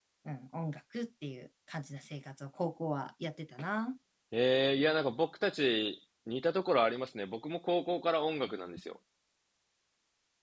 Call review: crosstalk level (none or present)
none